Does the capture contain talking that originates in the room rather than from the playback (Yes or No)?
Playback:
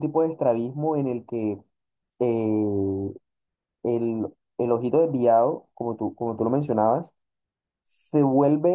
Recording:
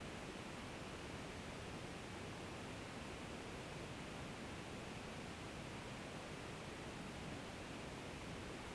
No